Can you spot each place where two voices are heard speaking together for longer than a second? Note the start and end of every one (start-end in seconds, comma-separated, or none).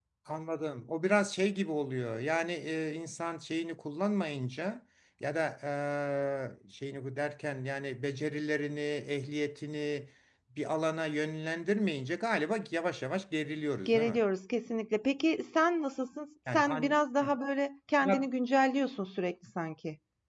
none